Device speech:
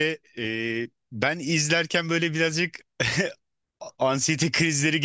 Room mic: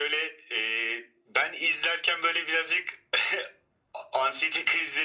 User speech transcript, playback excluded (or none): none